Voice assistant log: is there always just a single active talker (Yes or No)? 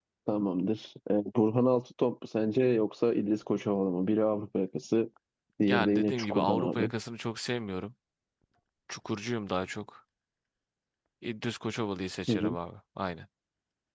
No